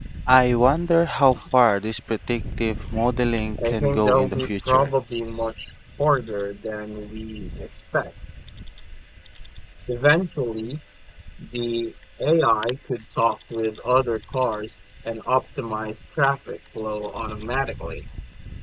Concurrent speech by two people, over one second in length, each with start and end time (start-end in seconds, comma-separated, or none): 3.6-4.9